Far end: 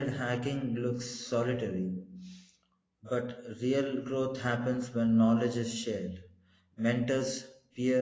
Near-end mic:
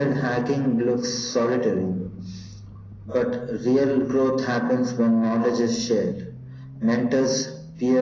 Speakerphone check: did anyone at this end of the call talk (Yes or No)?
No